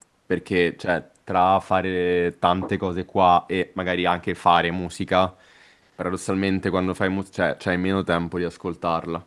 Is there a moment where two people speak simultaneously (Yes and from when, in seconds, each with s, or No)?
No